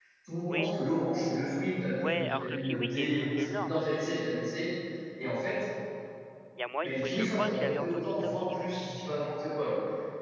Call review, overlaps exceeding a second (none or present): present